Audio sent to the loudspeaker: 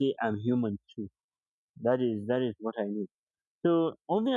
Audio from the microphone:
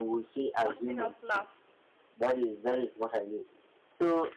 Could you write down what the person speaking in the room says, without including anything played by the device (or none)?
busting out laugh